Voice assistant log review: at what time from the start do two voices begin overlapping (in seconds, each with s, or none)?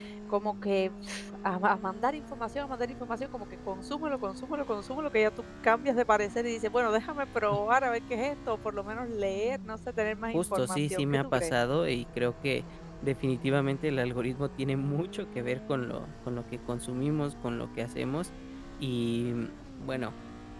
10.3 s